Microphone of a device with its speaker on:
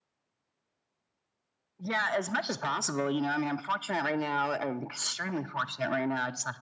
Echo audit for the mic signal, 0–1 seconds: neither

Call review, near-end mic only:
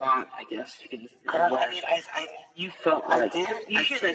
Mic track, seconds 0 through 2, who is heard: echo only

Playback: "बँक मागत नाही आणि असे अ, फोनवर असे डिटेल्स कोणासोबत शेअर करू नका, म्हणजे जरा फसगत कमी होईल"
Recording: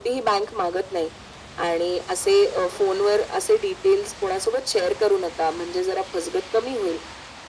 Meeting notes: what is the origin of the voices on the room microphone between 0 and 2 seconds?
echo only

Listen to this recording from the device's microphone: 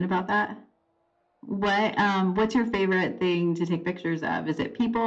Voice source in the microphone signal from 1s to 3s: echo only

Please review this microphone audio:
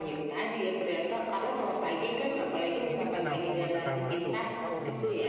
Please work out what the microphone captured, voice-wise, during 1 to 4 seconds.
both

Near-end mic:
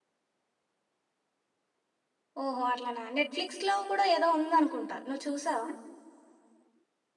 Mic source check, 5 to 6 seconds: user only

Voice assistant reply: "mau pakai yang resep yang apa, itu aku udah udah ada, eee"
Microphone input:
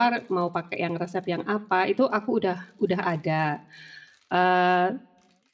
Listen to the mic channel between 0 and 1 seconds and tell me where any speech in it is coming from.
echo only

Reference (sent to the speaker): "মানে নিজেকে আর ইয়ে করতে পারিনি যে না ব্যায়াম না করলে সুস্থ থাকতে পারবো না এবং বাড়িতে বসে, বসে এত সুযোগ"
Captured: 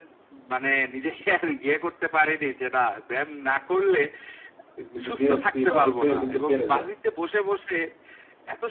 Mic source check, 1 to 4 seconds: echo only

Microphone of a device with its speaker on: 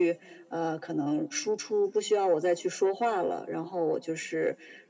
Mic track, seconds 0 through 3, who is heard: echo only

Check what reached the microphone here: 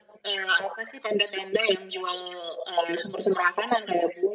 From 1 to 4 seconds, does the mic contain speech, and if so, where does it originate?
echo only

